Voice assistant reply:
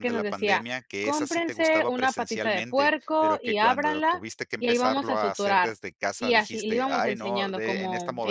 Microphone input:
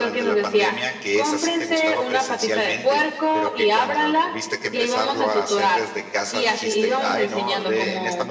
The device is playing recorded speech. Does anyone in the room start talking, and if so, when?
none

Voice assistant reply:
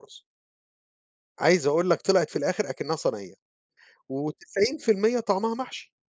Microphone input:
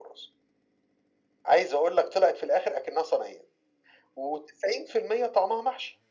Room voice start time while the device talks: none

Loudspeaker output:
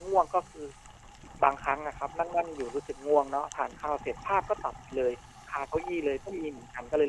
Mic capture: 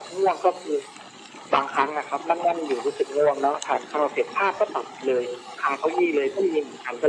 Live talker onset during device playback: none

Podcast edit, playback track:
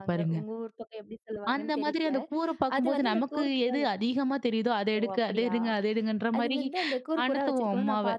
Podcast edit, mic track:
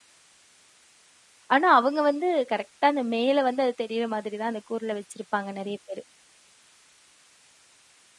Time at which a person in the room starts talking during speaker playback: 1.6 s

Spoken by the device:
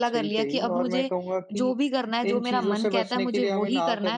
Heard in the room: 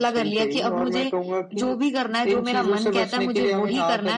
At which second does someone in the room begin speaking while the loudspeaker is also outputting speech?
none

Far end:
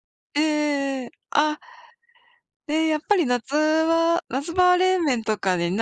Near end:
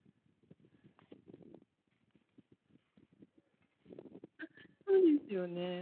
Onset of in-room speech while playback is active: 4.4 s

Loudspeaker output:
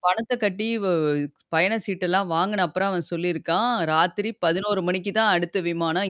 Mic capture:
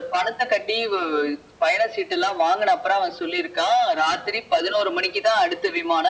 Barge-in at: none

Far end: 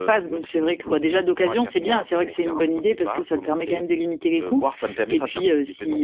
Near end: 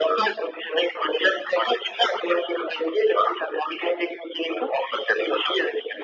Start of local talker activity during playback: none

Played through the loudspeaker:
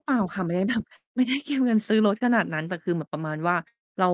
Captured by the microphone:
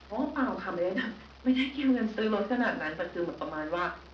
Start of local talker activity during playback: none

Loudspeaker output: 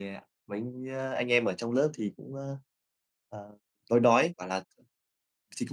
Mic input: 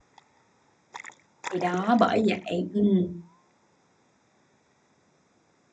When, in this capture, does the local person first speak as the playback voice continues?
1.5 s

